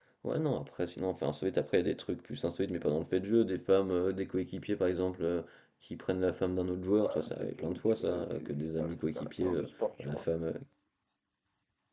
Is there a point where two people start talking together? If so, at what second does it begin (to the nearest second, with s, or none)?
7 s